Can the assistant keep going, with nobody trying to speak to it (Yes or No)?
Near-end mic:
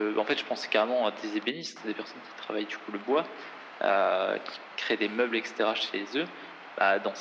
Yes